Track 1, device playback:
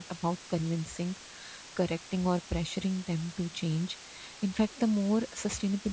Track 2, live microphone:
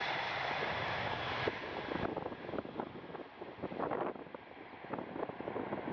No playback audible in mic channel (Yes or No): Yes